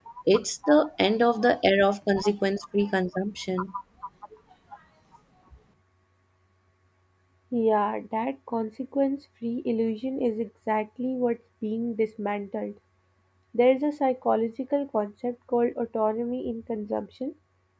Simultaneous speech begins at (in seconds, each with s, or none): none